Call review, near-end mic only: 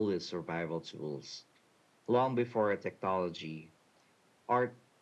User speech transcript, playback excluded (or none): none